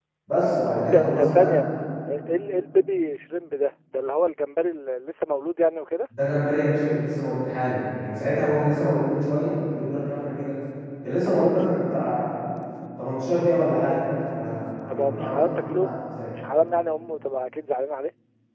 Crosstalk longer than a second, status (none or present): present